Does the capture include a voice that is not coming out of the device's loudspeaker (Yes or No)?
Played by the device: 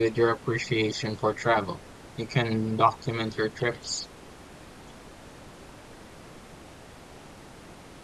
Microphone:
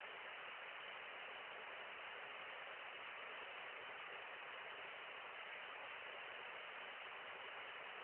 No